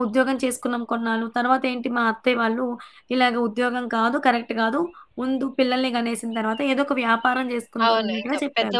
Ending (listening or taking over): taking over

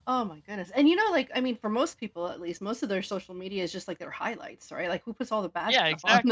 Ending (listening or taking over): taking over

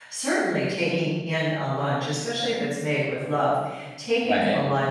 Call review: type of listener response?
listening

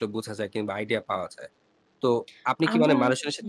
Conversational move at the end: listening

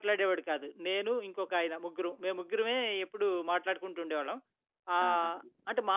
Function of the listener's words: listening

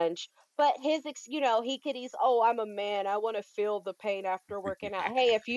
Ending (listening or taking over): listening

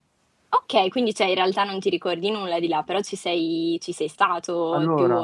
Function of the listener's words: taking over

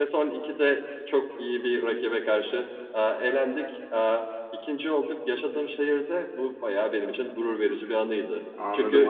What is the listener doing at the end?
taking over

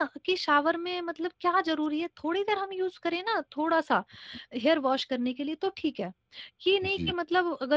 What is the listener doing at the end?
listening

